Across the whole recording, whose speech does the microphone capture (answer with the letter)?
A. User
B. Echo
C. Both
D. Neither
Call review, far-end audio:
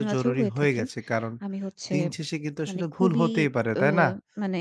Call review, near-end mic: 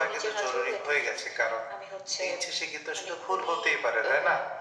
B